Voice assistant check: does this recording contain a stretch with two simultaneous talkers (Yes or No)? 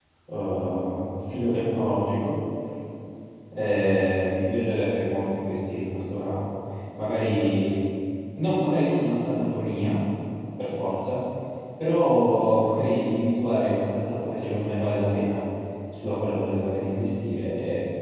No